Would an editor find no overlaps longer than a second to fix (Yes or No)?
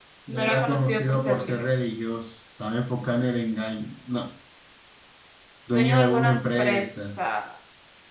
No